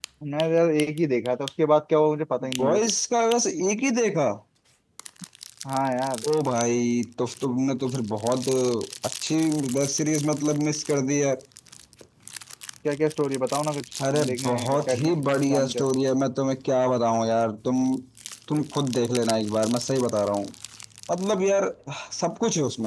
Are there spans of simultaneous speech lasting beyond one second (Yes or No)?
Yes